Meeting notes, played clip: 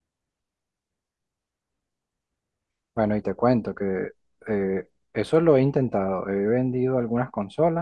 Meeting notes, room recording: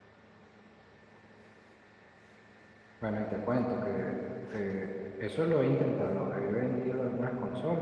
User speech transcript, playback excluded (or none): none